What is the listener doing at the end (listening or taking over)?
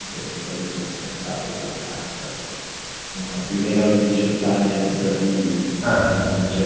listening